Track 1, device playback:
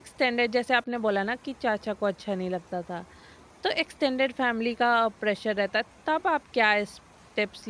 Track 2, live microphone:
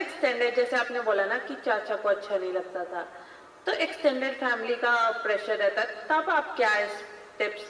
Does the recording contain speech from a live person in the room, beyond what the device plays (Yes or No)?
No